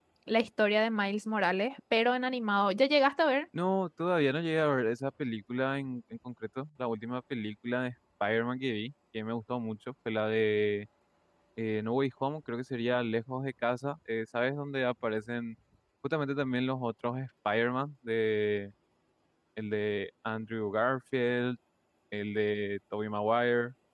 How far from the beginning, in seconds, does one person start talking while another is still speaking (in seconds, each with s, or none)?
none